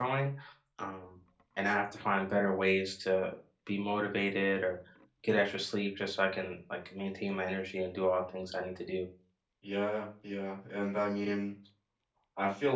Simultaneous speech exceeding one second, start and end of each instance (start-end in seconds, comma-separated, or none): none